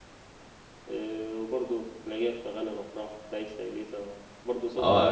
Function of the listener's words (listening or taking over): taking over